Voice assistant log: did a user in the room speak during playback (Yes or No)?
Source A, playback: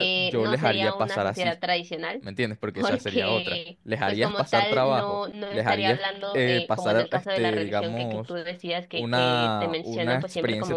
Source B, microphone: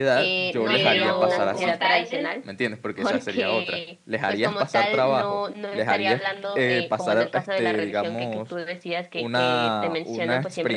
Yes